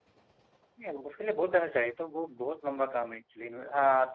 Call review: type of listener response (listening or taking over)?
taking over